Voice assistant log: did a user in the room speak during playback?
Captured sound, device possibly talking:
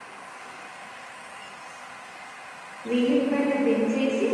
Yes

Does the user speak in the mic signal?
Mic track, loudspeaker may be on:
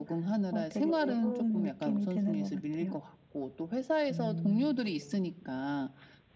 Yes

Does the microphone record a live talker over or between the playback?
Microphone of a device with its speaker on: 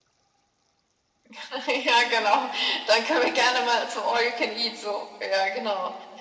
No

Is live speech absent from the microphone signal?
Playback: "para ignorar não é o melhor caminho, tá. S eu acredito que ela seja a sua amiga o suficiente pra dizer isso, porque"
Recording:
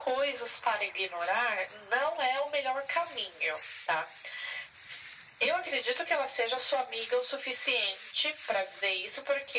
Yes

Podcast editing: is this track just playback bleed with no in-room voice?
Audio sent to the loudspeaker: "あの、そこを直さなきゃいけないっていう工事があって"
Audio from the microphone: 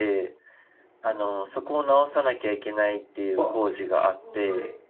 No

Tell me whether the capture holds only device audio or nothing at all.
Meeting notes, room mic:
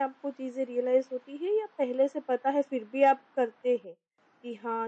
Yes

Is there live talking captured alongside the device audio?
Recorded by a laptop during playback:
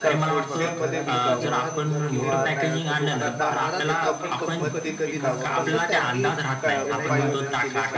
Yes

